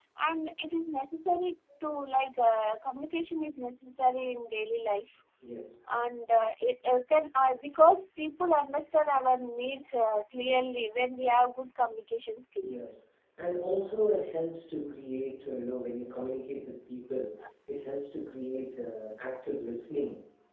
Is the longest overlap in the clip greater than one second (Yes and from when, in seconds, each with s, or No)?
No